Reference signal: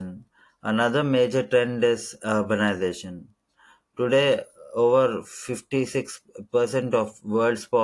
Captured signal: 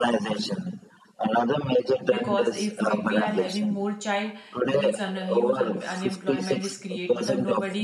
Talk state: both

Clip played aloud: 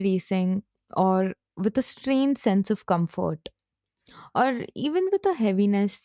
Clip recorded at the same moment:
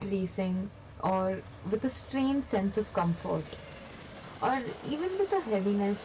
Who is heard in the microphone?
echo only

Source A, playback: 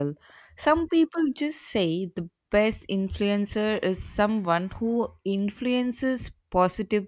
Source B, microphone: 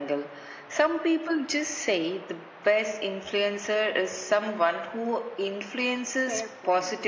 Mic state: both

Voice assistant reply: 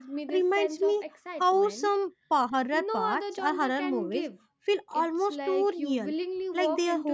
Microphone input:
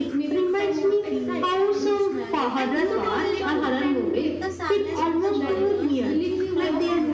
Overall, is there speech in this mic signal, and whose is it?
both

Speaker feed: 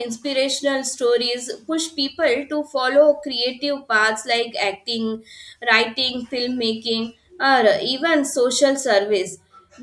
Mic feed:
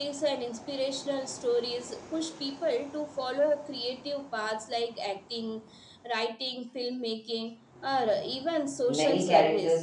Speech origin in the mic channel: both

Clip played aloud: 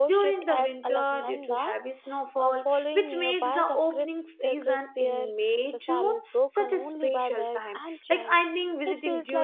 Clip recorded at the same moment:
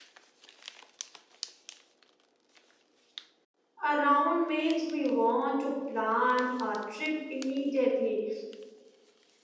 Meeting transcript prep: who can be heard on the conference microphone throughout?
user only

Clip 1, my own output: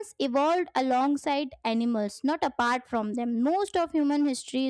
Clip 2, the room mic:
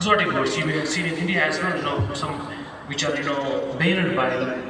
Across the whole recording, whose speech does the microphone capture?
user only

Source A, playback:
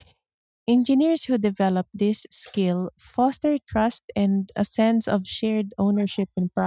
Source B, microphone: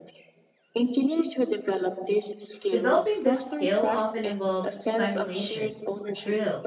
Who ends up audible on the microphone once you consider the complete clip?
both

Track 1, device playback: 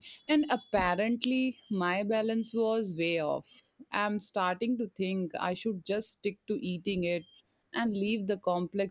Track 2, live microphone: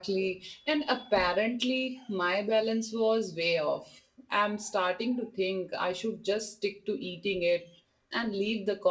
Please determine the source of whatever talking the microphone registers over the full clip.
echo only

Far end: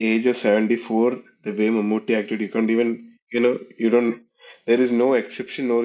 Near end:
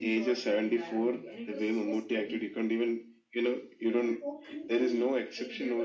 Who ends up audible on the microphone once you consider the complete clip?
both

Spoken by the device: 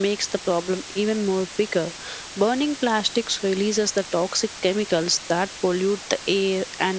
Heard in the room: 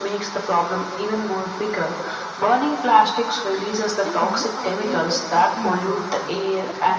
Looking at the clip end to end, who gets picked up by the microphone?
both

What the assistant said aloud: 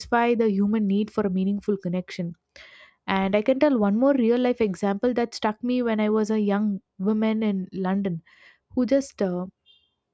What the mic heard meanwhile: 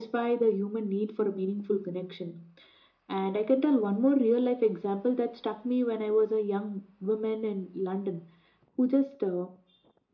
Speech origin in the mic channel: echo only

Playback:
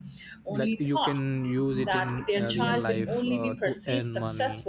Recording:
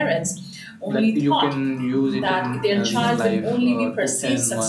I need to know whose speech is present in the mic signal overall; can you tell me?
echo only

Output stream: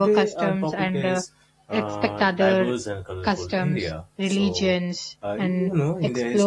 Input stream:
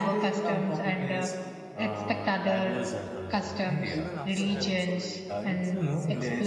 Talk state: both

